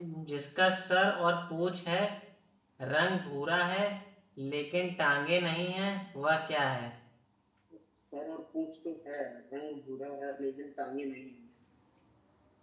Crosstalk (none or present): none